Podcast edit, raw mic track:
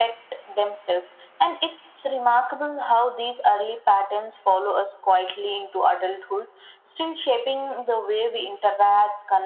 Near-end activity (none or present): none